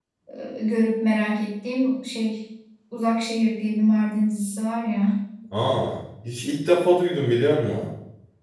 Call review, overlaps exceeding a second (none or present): none